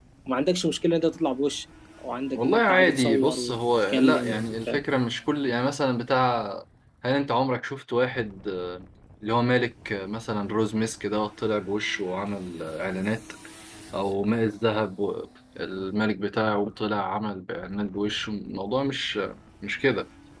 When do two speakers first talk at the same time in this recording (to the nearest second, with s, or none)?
2 s